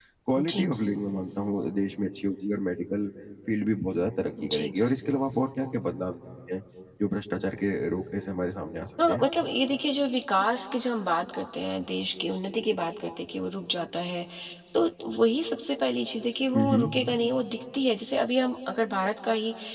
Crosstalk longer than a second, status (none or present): none